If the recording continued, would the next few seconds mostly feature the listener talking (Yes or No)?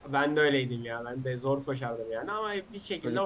No